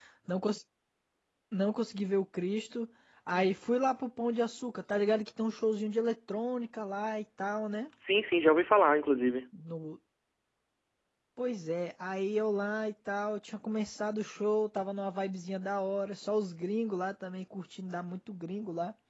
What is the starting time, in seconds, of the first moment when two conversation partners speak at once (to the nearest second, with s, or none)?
none